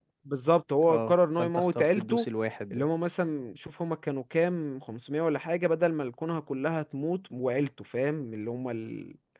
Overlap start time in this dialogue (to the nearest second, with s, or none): 1 s